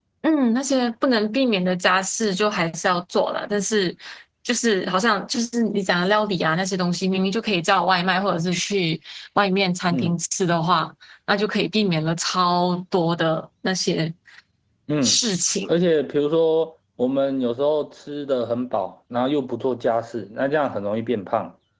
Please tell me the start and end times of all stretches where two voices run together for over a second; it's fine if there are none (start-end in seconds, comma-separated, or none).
none